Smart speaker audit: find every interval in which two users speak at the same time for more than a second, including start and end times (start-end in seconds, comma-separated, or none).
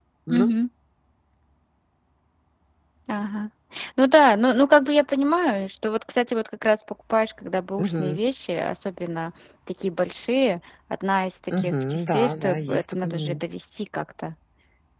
11.6-13.4